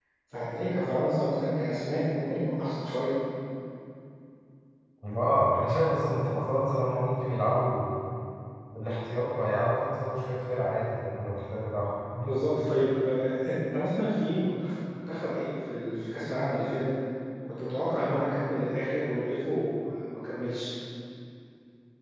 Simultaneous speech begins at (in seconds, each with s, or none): none